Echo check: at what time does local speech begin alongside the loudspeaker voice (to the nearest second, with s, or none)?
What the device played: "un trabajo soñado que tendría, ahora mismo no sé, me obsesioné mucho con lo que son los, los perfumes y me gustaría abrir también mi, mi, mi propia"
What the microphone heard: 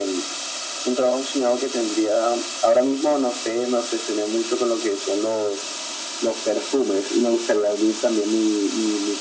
none